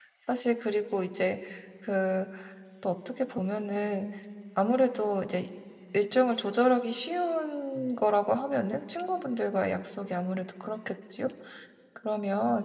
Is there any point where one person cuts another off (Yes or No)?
No